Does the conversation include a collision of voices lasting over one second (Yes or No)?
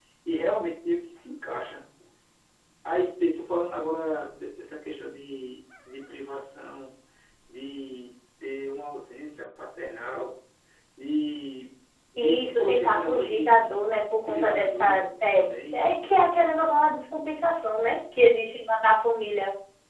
Yes